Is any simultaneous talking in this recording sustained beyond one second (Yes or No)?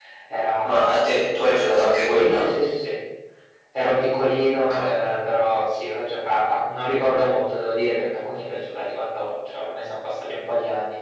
No